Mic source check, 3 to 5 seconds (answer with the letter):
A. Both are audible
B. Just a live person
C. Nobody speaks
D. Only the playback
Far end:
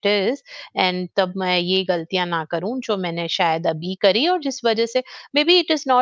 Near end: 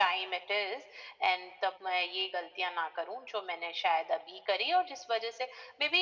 D